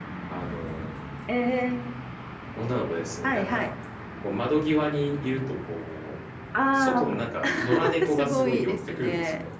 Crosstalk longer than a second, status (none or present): present